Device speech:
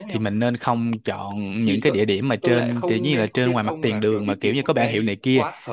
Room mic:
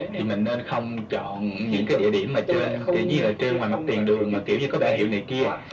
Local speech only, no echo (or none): none